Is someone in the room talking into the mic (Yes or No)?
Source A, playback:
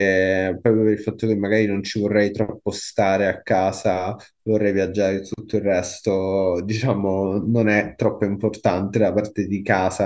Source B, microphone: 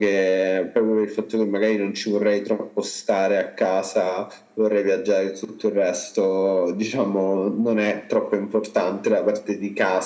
No